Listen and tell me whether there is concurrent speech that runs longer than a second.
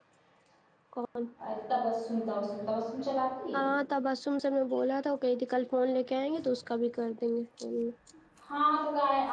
No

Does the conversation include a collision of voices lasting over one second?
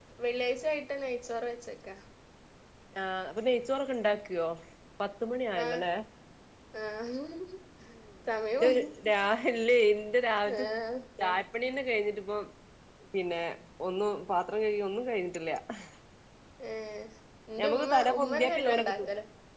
Yes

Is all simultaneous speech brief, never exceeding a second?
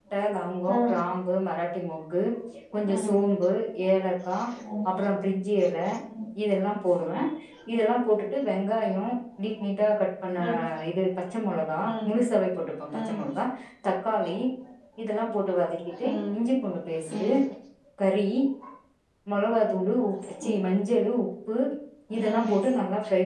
Yes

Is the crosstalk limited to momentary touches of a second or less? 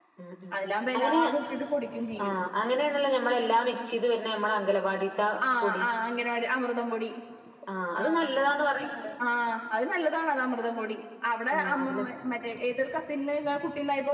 Yes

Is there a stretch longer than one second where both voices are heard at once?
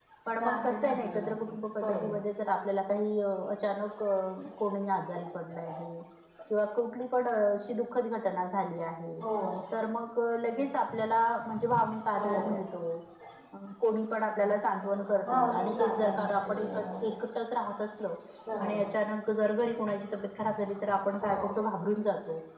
Yes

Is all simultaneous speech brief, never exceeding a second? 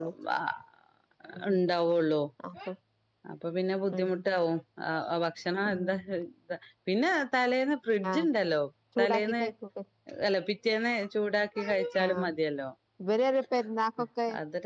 Yes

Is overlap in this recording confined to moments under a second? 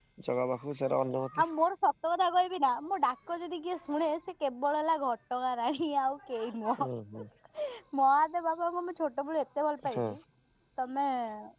Yes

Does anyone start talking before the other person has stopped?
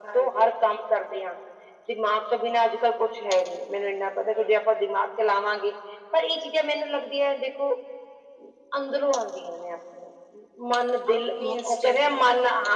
Yes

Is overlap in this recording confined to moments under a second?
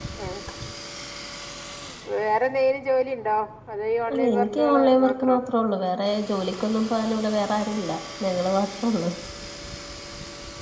No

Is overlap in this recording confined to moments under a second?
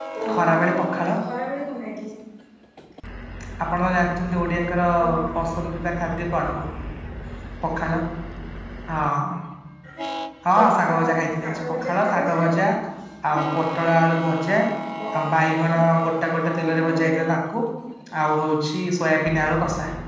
No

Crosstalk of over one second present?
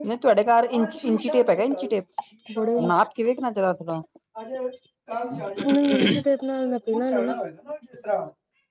No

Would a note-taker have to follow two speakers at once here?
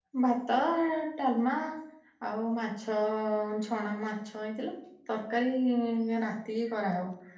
No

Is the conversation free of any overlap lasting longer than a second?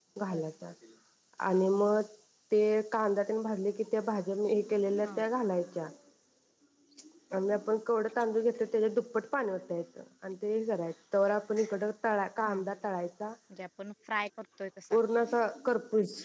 Yes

